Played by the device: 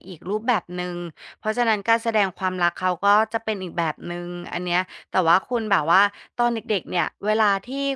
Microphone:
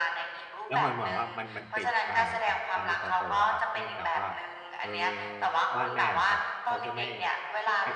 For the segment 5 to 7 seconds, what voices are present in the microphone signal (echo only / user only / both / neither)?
both